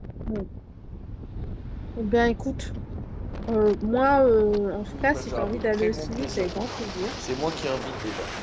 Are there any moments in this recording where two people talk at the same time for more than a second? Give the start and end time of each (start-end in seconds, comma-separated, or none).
5.0-6.7